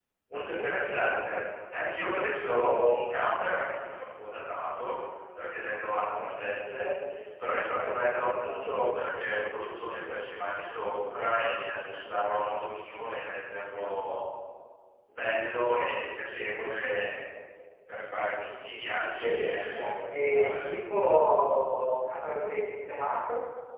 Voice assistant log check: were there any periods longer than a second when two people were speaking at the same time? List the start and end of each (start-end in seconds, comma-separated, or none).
19.2-20.7